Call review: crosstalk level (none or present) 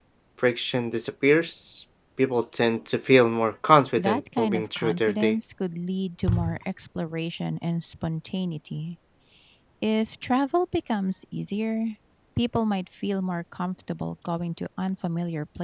present